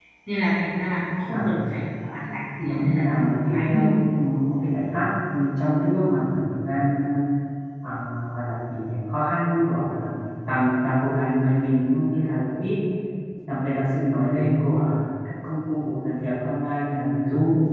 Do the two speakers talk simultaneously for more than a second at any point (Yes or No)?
Yes